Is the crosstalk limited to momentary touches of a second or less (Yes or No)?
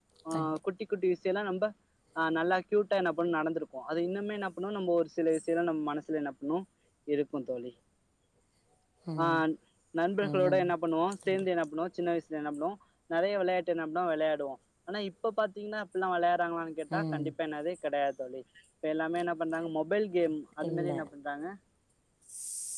Yes